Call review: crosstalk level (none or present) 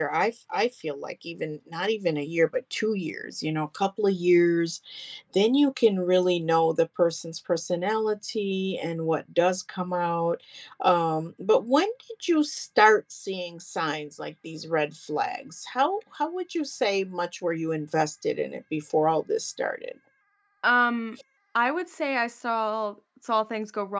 none